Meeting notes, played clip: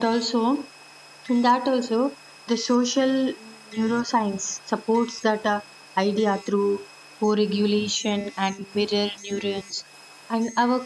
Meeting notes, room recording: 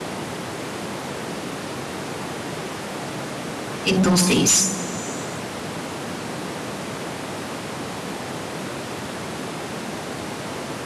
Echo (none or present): none